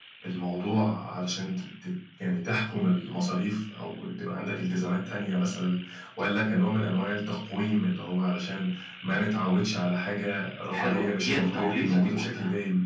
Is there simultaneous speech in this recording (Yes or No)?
Yes